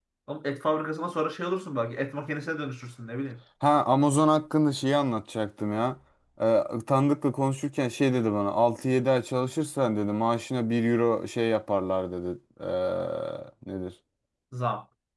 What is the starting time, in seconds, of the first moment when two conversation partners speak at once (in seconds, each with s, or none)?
none